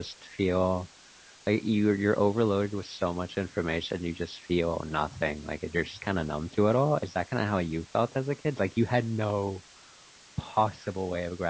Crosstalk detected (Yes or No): No